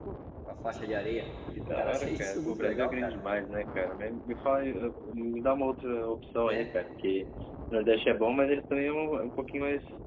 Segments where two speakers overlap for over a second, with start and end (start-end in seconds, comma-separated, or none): 1.8-3.1